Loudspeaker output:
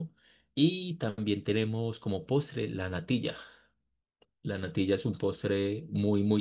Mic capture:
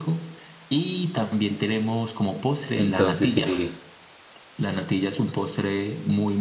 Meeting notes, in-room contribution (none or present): present